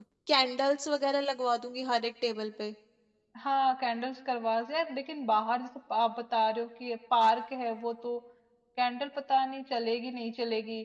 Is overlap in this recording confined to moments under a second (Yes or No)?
Yes